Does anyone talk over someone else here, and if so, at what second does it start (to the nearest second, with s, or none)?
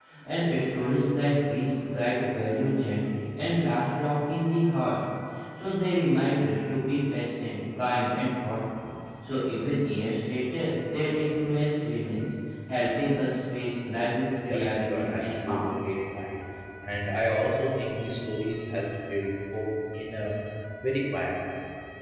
14 s